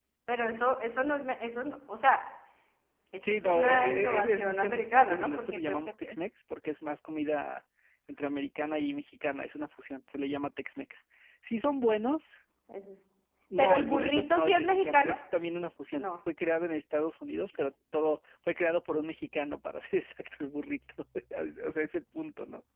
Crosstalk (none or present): present